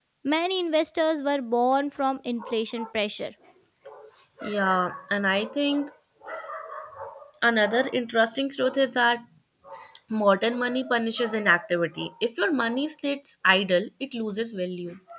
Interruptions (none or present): none